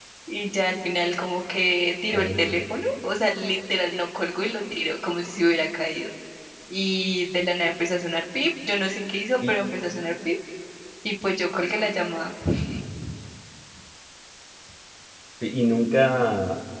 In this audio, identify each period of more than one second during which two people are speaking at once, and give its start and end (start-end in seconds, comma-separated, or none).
none